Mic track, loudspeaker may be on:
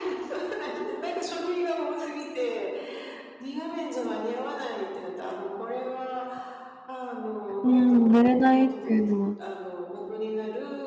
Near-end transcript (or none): うーん。寝れないっていうのは。